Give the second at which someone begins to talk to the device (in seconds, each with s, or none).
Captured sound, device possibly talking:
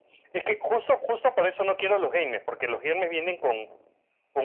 none